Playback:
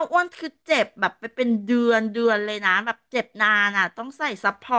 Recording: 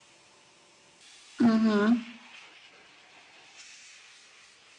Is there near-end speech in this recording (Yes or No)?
Yes